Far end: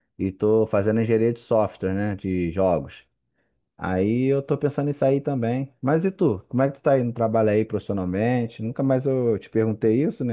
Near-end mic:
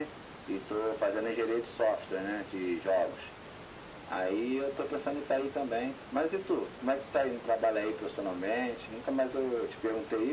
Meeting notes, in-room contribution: none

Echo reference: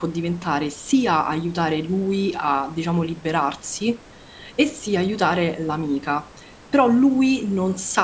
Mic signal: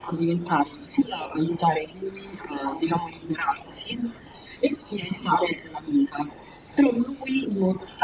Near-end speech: none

